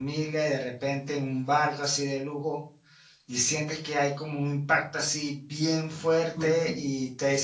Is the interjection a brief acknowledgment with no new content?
Yes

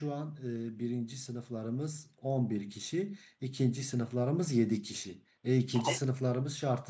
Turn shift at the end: No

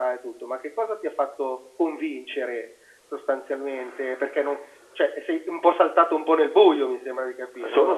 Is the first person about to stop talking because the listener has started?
Yes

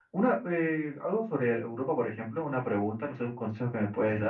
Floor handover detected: No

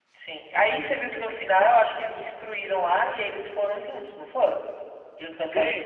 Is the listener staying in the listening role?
No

